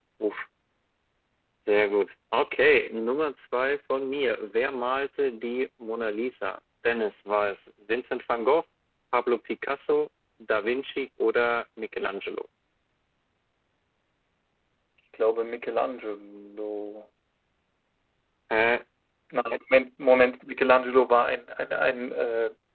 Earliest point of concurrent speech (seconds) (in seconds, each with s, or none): none